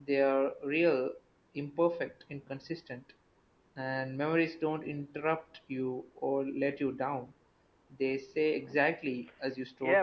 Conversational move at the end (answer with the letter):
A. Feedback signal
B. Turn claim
B